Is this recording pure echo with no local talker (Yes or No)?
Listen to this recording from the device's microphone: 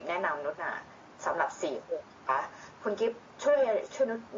Yes